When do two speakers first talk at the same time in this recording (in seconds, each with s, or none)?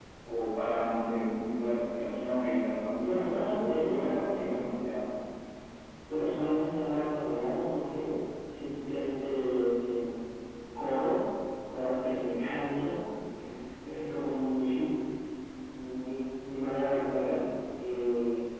3.0 s